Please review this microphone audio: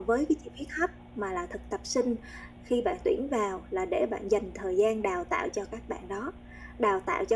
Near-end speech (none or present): none